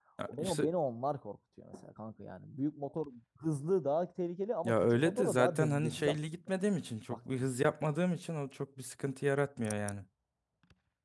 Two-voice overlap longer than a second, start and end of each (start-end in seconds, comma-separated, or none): 4.6-6.4